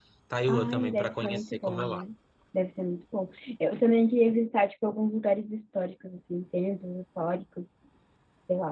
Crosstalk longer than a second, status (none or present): present